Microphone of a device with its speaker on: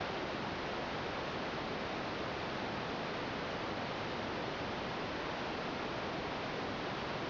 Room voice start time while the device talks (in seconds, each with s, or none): none